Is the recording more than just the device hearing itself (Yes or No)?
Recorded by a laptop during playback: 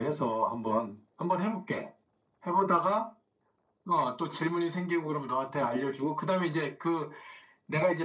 No